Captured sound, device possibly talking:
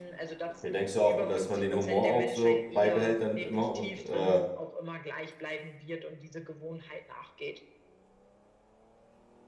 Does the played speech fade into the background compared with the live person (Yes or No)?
Yes